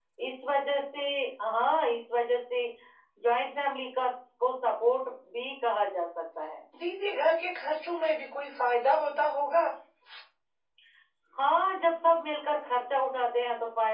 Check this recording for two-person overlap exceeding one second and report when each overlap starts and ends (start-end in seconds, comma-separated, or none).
none